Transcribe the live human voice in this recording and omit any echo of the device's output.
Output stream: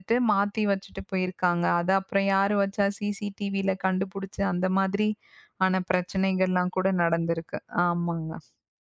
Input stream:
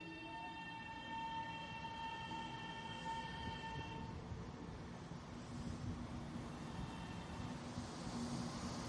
none

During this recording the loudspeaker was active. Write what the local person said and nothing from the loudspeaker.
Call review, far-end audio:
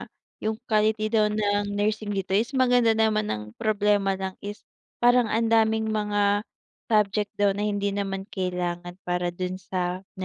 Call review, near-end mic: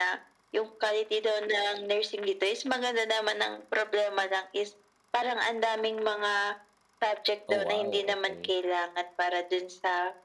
Oh wow, okey.

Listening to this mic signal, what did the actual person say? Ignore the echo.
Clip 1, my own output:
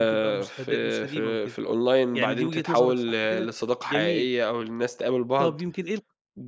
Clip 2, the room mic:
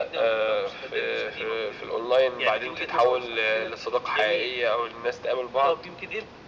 none

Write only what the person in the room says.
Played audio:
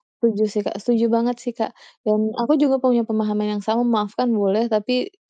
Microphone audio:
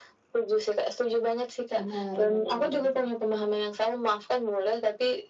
Benar bener banget sih Kak.

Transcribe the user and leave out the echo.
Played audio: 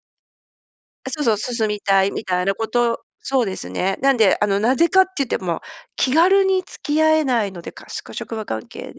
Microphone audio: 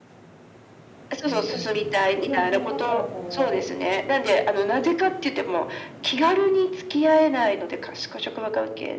うん、ではそれだったらこ

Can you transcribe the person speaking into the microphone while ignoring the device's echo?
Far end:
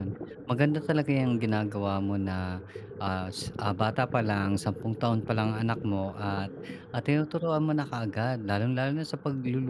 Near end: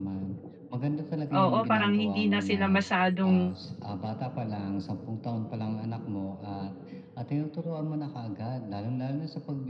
oo, parang hindi na sila masyadong

